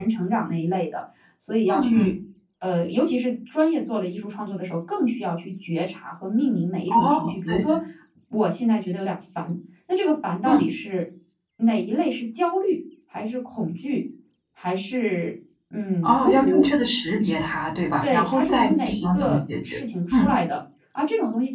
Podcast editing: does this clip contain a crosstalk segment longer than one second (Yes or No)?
Yes